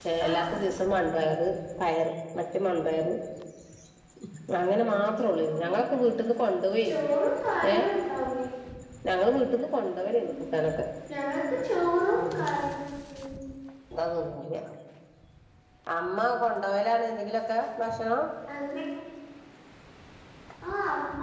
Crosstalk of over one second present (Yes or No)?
No